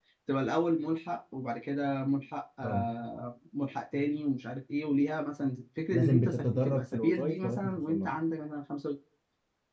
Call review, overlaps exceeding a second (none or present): present